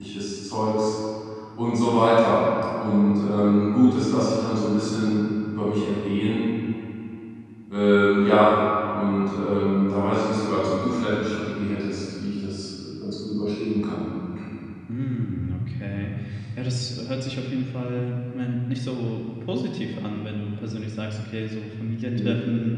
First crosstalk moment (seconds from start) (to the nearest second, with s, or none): none